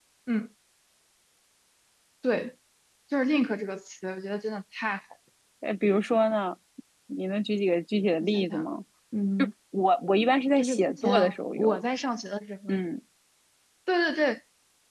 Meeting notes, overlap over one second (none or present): present